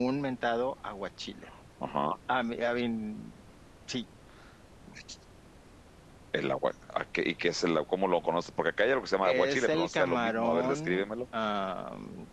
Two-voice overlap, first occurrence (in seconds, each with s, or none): 9.2 s